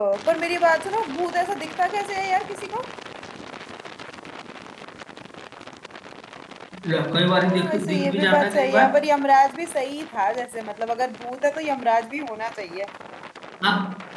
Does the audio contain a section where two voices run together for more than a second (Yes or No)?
Yes